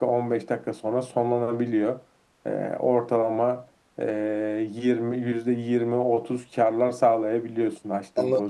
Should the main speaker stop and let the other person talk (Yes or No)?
Yes